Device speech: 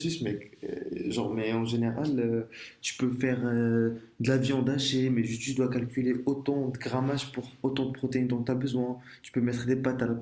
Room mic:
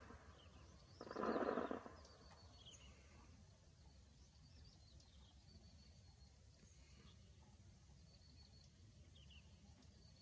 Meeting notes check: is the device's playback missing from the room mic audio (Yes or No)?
Yes